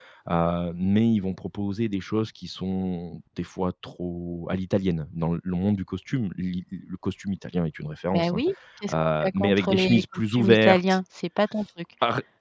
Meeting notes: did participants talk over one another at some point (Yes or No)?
Yes